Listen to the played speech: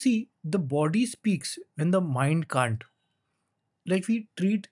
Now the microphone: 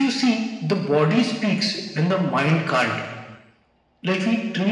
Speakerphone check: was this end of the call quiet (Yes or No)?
Yes